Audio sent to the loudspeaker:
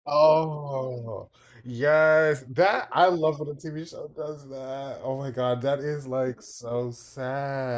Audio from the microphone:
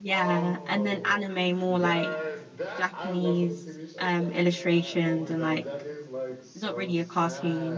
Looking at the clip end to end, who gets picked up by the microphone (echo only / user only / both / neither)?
both